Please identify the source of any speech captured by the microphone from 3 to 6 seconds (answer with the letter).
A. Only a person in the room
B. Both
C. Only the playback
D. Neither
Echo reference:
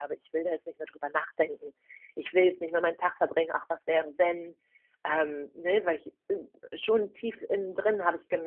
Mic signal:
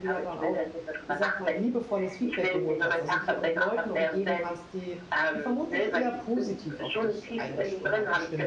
B